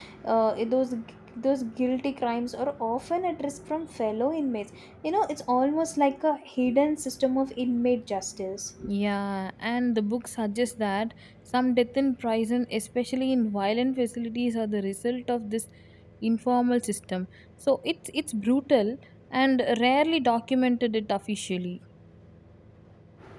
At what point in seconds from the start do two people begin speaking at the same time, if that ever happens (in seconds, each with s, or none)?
none